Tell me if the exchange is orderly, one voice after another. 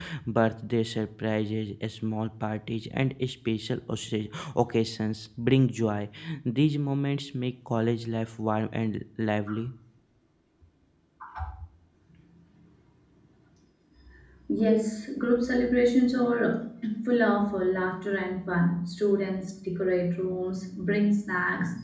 Yes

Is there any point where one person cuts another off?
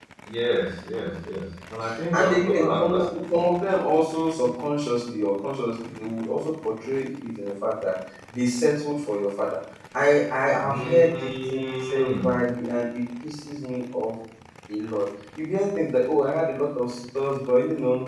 Yes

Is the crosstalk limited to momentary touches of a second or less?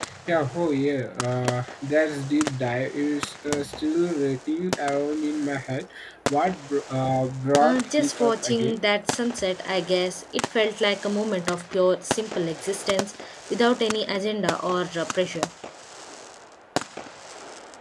No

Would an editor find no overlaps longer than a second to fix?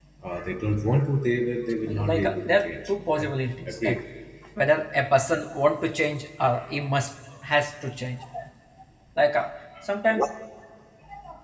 No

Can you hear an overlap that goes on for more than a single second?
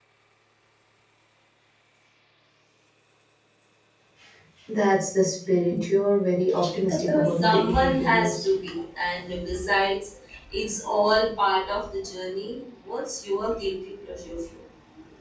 Yes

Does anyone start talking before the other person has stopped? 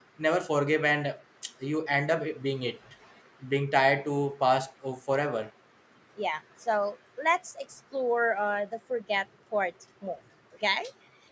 No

